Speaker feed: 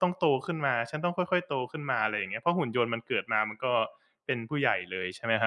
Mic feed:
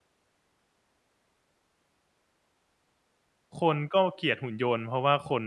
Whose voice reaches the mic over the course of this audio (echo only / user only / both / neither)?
user only